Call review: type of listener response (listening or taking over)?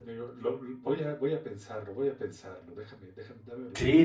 taking over